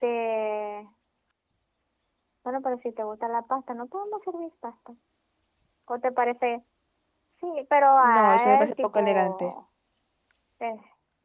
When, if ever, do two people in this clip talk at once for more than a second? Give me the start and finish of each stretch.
8.0-9.5

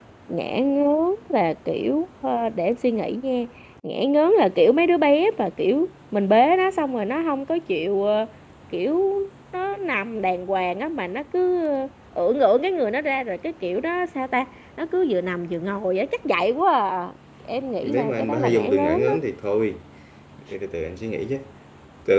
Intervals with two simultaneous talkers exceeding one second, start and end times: 17.8-19.1

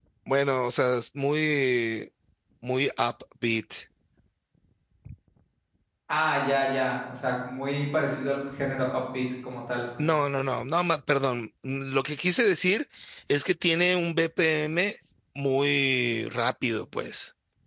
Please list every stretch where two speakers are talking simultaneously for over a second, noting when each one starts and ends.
none

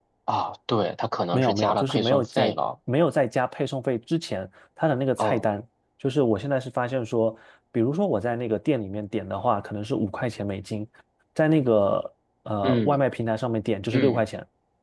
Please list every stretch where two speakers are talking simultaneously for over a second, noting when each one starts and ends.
1.3-2.5

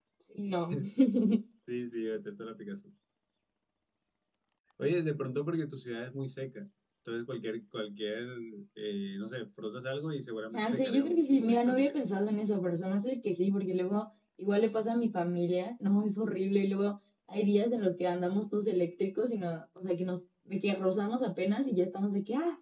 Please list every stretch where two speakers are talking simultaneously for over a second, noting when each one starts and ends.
10.5-11.9

